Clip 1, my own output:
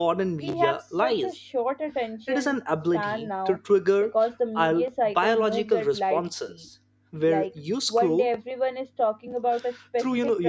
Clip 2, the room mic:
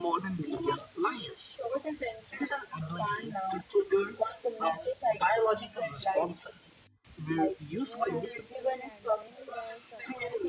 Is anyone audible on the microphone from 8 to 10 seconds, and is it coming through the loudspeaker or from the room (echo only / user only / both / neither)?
both